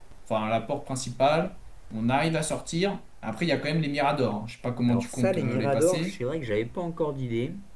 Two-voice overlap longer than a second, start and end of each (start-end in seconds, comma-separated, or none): 4.9-6.2